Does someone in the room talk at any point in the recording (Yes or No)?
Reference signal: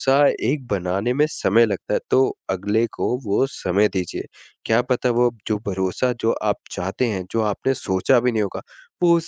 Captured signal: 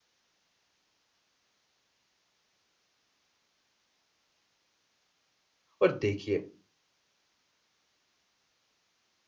Yes